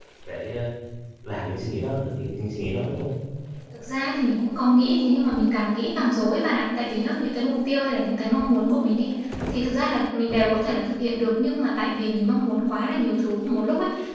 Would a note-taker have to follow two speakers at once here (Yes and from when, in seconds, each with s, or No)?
No